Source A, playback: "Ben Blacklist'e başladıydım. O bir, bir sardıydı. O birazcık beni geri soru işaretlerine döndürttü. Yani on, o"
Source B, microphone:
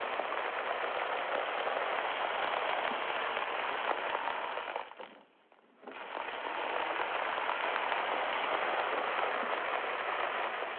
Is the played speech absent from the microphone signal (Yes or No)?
Yes